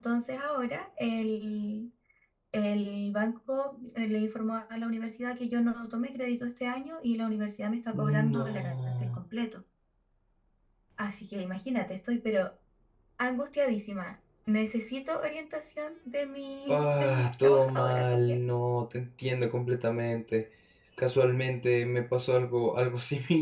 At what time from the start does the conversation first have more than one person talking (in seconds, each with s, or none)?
7.9 s